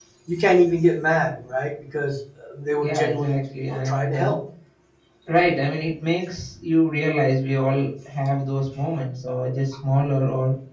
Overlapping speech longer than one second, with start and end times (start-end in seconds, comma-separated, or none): 2.8-4.3